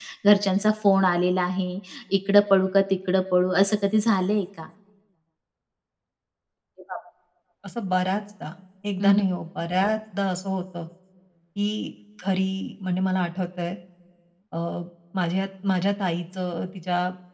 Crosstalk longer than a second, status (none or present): none